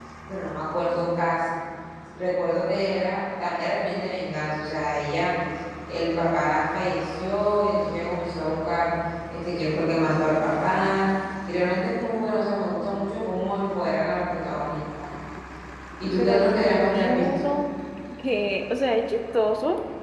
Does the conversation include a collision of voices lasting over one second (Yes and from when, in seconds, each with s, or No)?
Yes, from 16.2 s